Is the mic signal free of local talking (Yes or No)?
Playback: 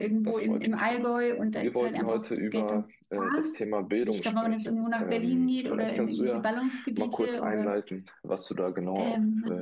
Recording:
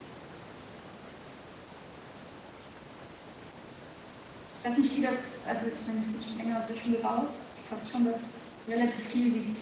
No